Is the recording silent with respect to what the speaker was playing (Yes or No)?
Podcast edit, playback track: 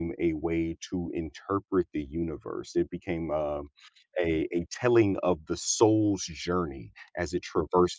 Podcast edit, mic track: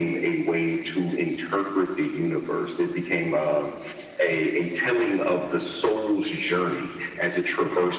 No